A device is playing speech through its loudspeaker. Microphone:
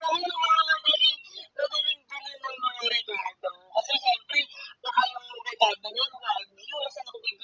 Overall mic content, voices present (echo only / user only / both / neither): echo only